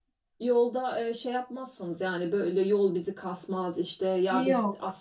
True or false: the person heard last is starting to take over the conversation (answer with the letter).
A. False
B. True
A